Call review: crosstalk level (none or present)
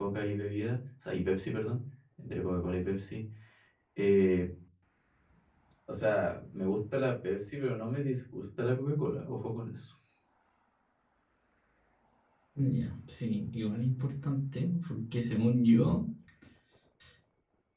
none